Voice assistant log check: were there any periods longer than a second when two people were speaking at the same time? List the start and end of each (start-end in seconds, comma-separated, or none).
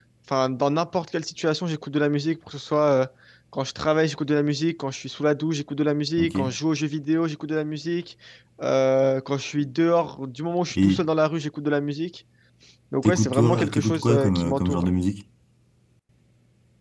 13.0-14.9